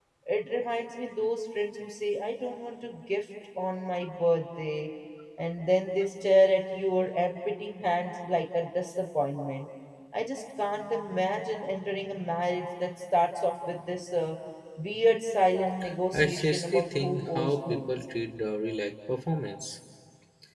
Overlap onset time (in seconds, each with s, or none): 16.1 s